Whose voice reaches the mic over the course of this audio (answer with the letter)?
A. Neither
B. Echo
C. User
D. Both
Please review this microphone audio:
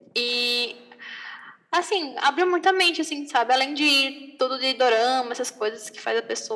B